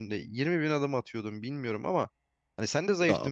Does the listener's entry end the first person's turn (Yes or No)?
No